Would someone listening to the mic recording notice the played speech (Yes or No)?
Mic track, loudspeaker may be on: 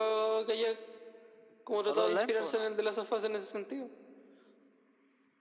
Yes